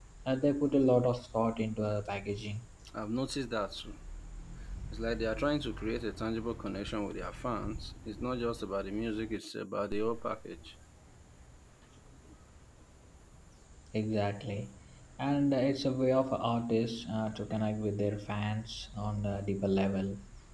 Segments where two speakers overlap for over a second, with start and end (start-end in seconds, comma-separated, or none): none